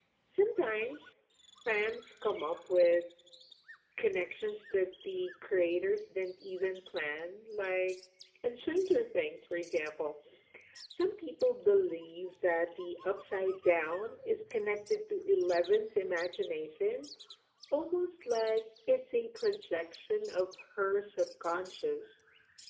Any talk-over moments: No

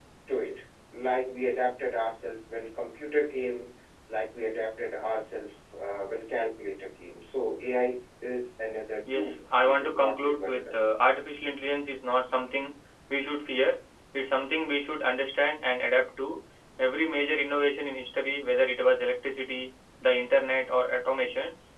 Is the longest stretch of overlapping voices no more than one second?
No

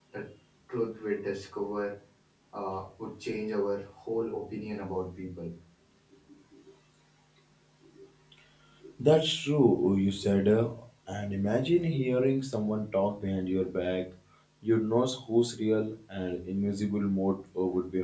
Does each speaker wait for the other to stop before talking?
Yes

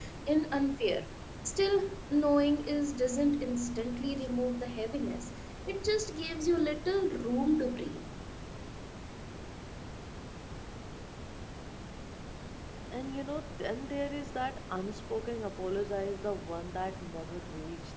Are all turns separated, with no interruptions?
Yes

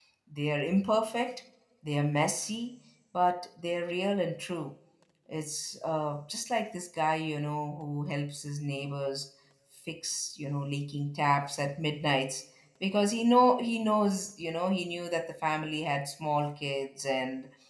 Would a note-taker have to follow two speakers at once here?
No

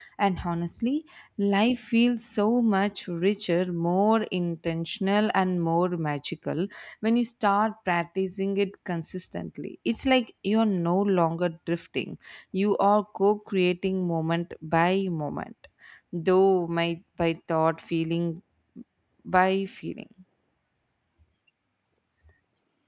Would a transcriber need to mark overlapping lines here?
No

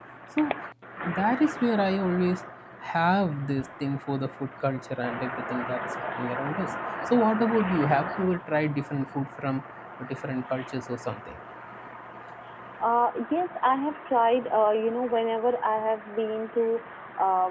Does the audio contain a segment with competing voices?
No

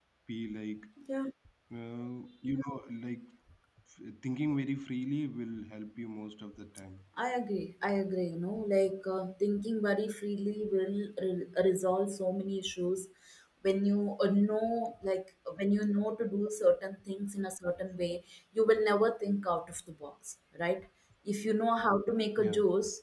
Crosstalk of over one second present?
No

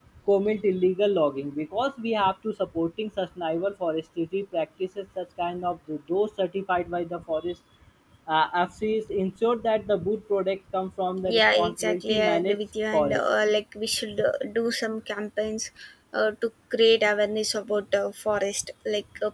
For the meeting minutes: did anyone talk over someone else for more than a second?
Yes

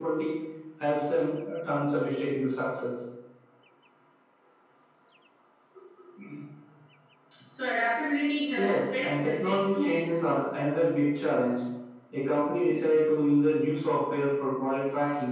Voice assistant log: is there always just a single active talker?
No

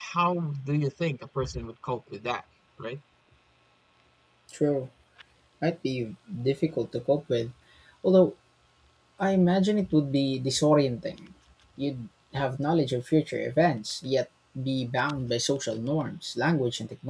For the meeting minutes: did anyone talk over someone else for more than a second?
No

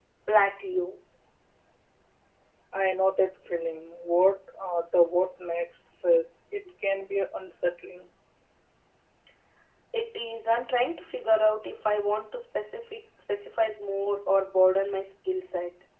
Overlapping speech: No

